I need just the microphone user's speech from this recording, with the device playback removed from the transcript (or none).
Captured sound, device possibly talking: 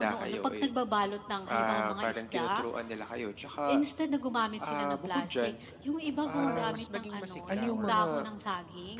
para mas maging masigla or,